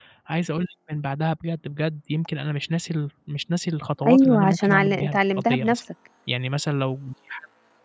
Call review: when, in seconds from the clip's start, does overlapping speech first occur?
4.0 s

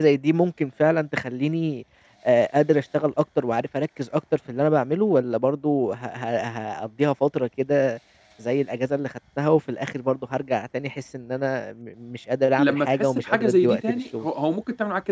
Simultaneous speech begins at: 12.6 s

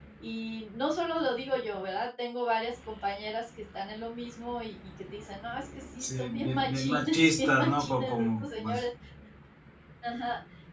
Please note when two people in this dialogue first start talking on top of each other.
6.0 s

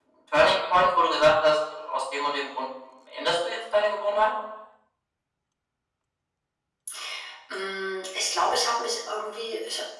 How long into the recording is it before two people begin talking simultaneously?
none

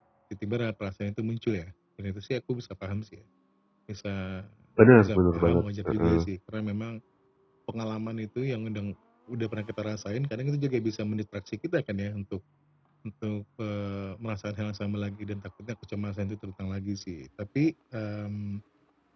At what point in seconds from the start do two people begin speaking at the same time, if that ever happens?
5.0 s

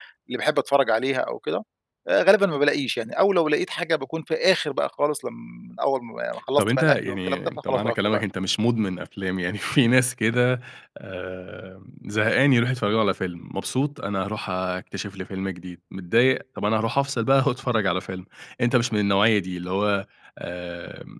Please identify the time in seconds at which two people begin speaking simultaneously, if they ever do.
6.6 s

